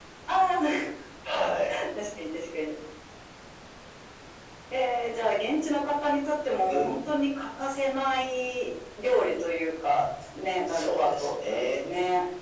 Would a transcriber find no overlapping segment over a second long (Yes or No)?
No